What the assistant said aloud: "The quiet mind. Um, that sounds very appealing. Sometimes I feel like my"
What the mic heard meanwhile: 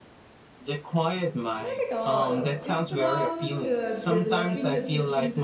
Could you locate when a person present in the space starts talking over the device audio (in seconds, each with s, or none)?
1.6 s